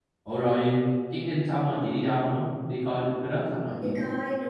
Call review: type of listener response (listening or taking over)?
taking over